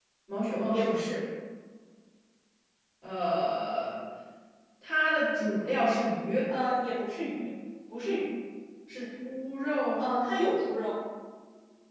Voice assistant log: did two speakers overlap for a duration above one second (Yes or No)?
No